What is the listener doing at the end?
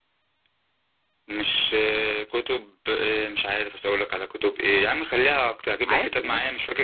listening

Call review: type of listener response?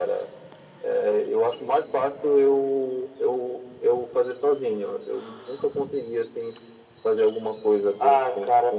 taking over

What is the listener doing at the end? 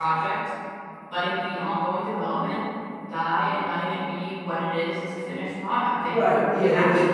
taking over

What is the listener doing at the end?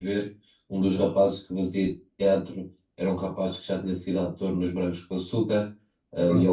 listening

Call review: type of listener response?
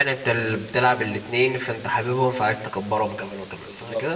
taking over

